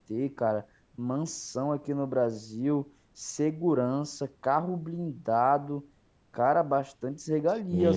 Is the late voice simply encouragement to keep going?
No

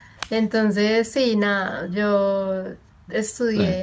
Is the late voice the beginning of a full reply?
No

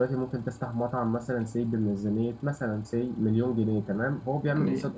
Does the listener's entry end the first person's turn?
No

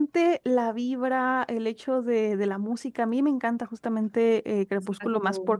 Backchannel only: Yes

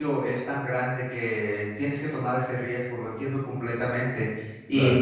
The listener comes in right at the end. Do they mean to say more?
No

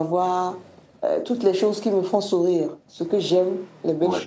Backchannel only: Yes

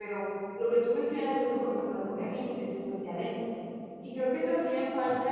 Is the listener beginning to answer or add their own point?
No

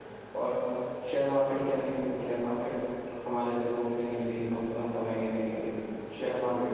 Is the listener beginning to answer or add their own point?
No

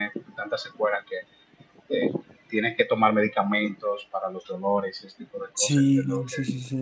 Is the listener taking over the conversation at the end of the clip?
Yes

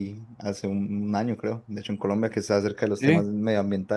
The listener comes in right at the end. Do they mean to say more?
No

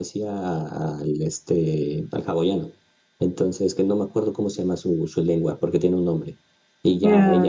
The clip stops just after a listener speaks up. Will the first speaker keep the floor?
Yes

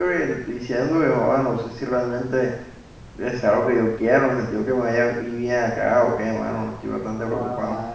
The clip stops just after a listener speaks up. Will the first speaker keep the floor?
No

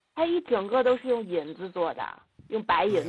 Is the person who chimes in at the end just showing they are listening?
No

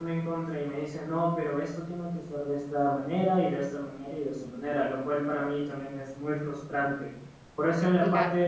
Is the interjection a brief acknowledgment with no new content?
Yes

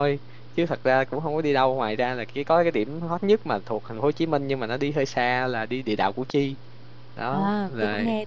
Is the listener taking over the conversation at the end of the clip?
Yes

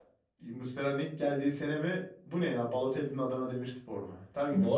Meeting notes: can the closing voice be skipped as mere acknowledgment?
No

